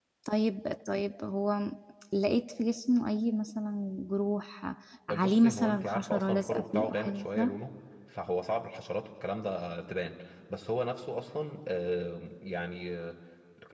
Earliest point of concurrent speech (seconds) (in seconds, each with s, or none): 5.1 s